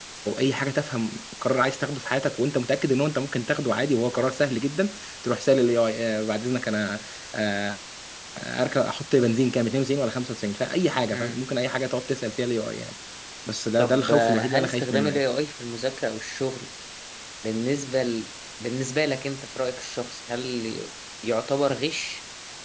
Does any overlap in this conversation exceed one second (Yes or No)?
Yes